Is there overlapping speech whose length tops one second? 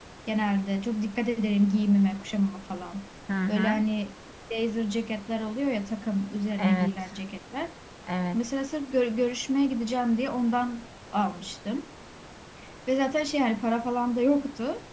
No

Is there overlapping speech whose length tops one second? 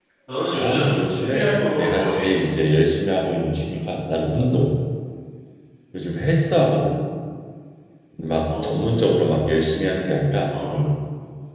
Yes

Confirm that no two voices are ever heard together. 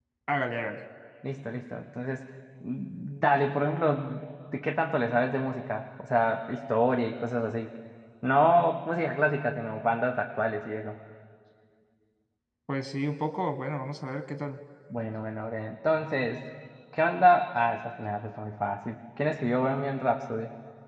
Yes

